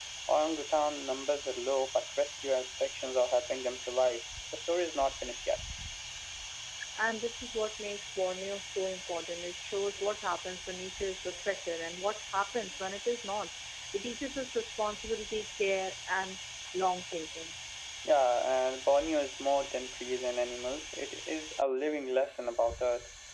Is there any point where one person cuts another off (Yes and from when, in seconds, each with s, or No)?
No